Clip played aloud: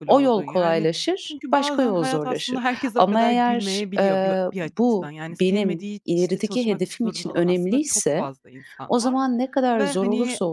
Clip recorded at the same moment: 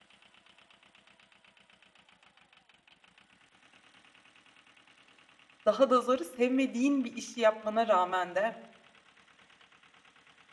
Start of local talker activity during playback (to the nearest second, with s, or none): 6 s